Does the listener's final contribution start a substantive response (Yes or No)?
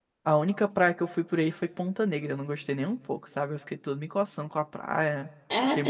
Yes